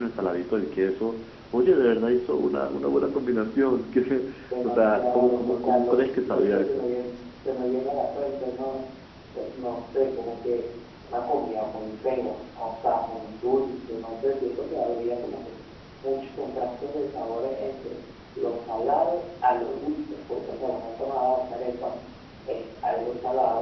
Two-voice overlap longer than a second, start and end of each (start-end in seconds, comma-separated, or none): 4.6-6.8